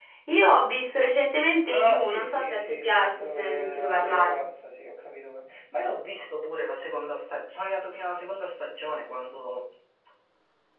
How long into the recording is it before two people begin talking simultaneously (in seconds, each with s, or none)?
1.7 s